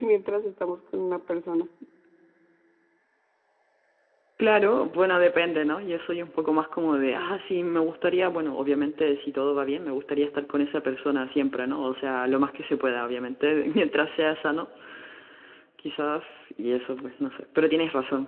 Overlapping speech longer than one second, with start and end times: none

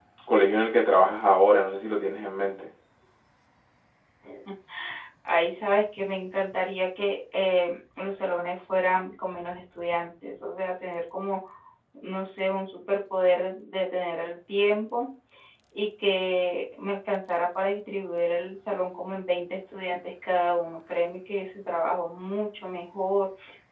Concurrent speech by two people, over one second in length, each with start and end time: none

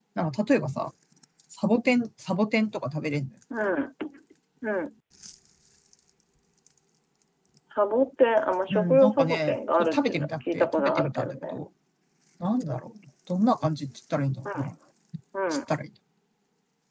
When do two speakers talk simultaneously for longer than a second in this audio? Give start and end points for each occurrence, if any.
8.7-11.5

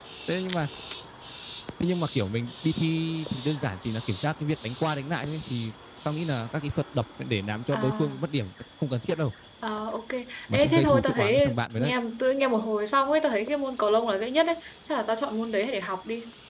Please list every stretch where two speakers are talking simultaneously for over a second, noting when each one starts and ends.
10.5-11.9

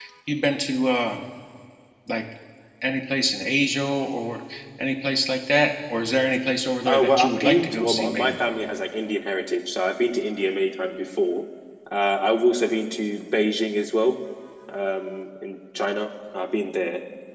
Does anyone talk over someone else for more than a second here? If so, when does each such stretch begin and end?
6.9-8.3

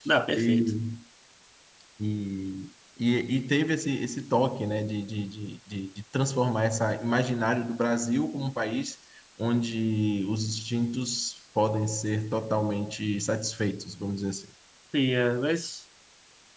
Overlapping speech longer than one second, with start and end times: none

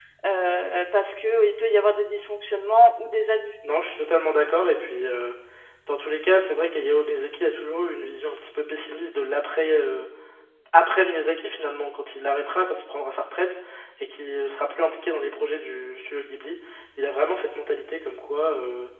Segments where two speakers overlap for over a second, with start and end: none

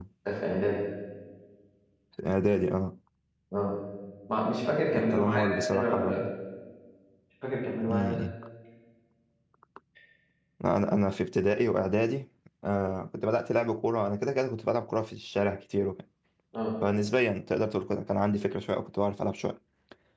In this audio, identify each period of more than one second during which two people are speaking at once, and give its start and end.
5.0-6.2

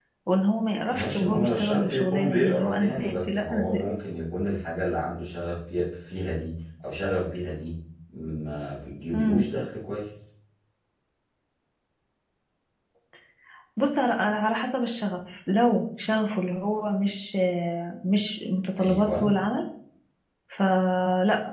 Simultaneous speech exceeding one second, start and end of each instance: 0.9-3.8

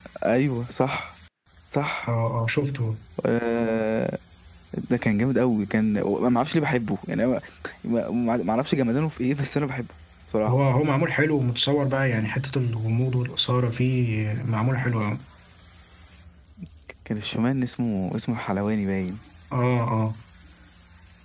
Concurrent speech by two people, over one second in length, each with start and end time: none

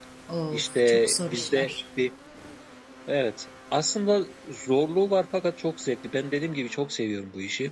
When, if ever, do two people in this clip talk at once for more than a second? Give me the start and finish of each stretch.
0.5-1.7

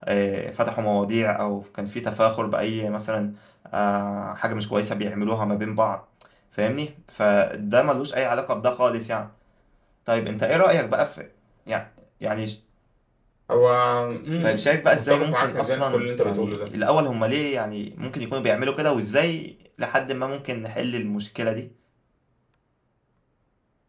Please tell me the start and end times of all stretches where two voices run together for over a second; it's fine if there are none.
14.4-16.7

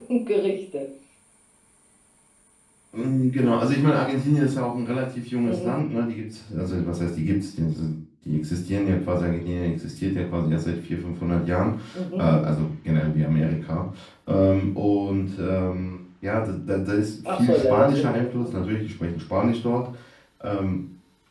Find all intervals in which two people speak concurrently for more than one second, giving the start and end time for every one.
17.2-18.5

